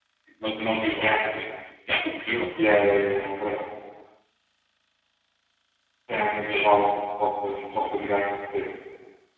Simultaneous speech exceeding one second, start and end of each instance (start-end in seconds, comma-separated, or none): none